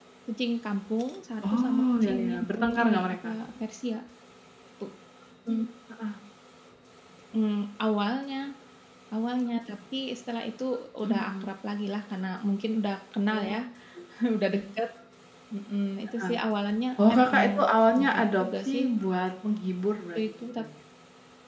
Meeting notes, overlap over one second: present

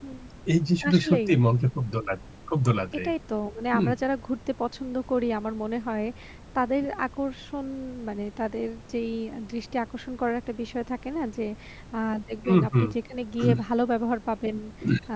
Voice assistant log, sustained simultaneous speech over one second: none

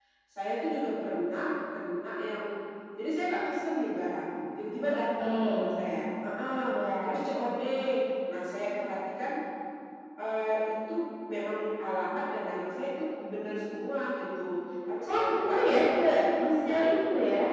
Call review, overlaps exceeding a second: present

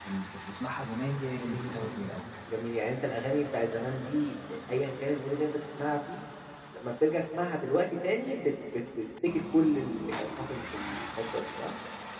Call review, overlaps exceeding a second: none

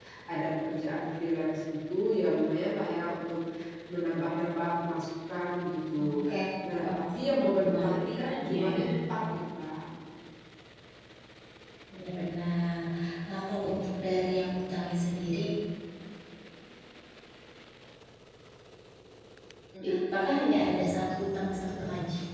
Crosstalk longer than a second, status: present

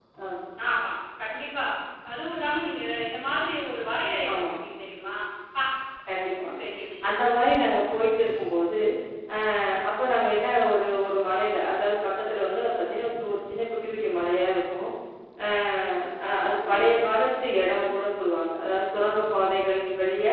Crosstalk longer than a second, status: none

